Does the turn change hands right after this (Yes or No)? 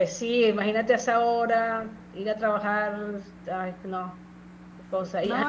No